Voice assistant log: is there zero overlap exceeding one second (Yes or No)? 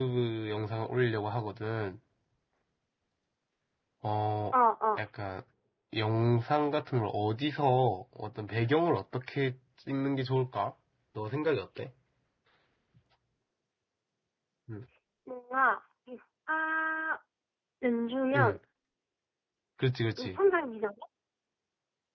Yes